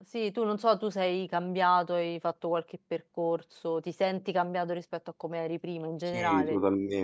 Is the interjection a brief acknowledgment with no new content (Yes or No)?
No